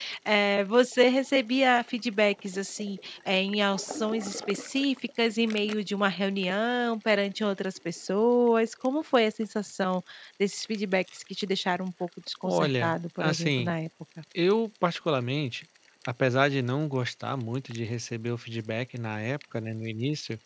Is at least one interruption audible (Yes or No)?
Yes